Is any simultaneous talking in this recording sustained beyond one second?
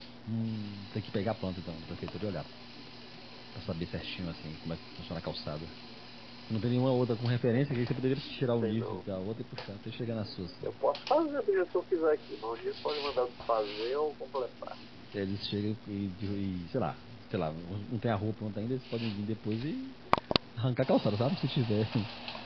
No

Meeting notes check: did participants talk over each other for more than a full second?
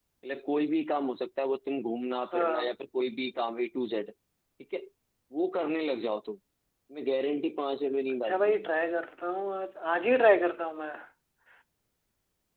No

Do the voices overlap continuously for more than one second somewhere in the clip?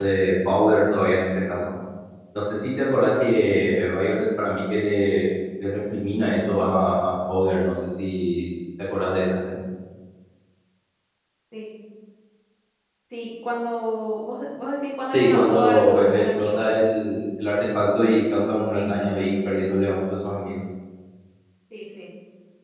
Yes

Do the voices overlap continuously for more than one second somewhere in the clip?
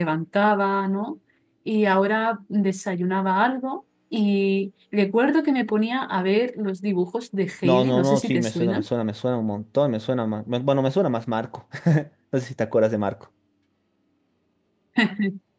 Yes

